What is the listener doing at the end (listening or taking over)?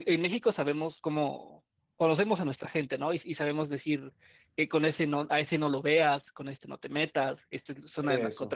listening